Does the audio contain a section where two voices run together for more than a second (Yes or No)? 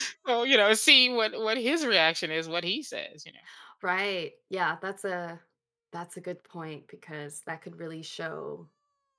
No